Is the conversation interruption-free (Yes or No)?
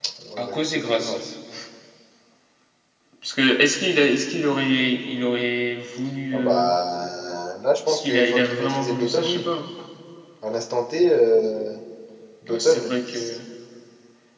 No